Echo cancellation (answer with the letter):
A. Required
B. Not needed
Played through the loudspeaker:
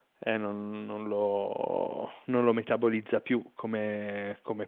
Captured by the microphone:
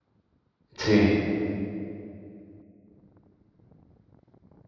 B